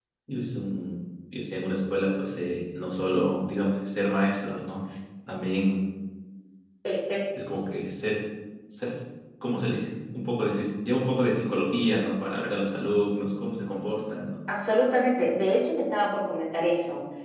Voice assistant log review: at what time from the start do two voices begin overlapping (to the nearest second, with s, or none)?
none